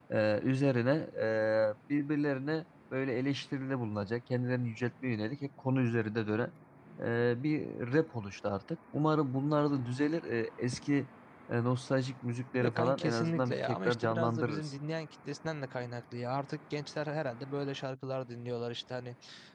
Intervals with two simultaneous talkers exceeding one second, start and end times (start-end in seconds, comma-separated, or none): 12.6-14.7